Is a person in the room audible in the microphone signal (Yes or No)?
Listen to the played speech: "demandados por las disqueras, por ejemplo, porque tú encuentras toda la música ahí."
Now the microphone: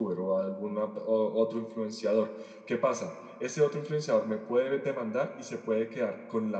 Yes